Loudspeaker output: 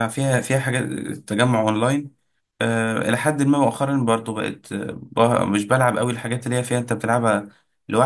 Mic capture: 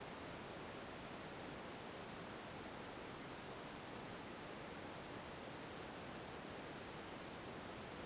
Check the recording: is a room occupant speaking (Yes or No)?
No